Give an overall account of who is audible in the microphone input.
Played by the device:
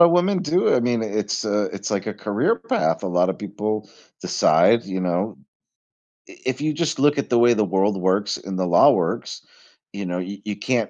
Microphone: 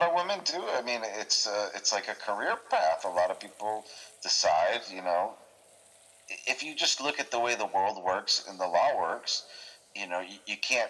echo only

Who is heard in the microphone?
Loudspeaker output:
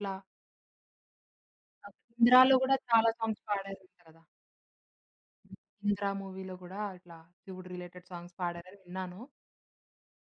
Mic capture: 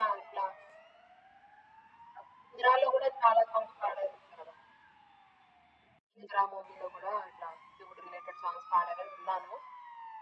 echo only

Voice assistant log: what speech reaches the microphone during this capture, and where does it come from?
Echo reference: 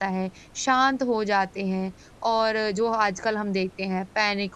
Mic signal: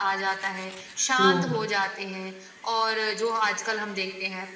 both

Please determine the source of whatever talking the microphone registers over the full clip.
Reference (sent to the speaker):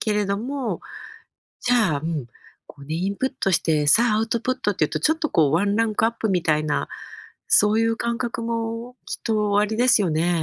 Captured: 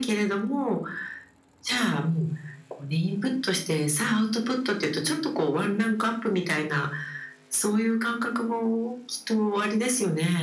echo only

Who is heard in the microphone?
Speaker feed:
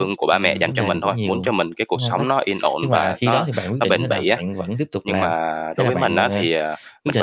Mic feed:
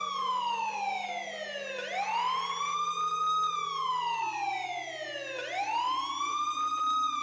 neither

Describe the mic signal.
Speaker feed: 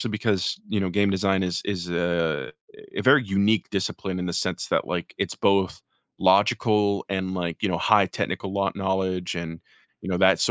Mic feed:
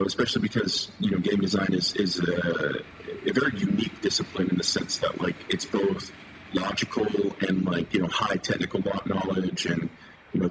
echo only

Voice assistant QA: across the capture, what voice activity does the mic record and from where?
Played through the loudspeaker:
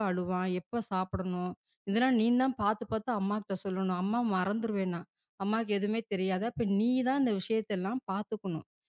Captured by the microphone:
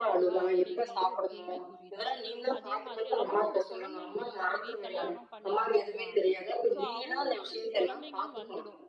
both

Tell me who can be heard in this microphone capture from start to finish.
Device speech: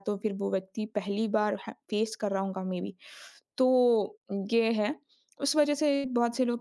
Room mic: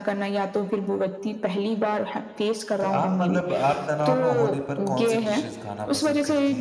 both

